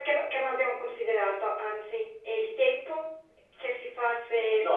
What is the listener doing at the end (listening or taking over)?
taking over